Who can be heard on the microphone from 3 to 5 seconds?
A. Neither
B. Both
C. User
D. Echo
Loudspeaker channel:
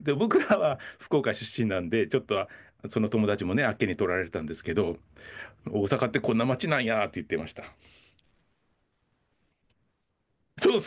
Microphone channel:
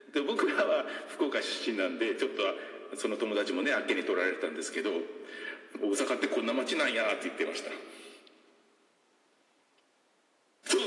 D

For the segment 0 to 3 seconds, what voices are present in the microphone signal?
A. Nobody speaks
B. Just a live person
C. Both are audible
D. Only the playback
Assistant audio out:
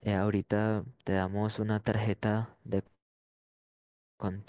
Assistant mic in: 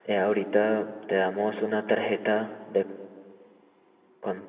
D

